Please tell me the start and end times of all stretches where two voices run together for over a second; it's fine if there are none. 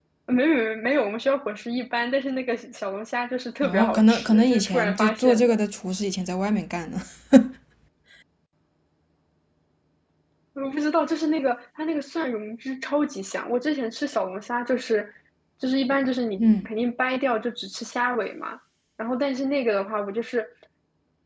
3.6-5.6

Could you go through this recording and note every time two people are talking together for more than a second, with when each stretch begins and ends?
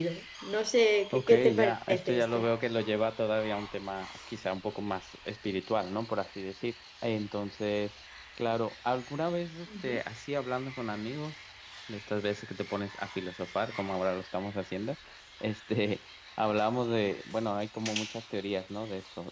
1.1-2.4

